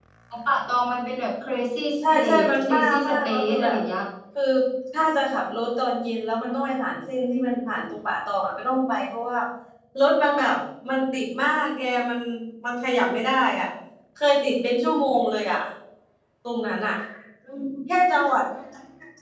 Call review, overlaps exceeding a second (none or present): present